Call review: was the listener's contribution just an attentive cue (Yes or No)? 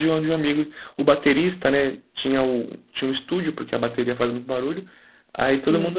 Yes